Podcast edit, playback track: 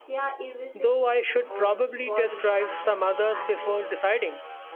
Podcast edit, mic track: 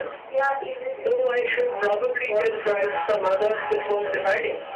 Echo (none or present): present